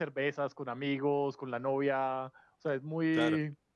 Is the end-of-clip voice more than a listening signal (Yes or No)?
No